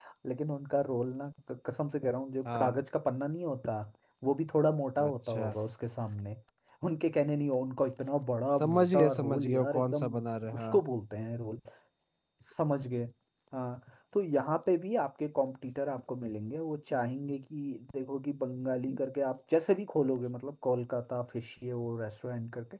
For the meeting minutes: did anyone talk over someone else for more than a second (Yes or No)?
Yes